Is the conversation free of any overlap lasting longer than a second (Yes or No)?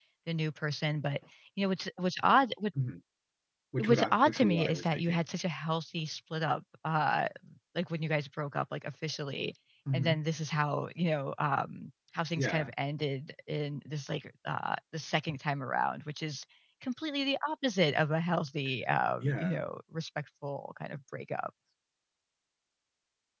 No